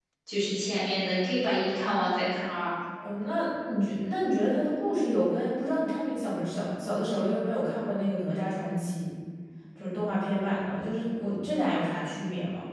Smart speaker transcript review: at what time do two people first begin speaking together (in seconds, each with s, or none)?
none